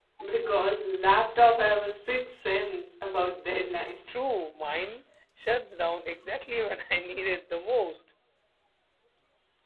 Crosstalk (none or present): none